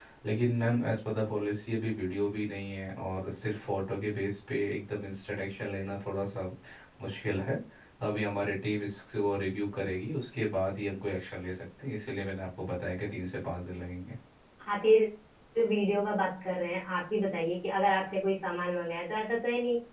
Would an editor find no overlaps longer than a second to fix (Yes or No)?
Yes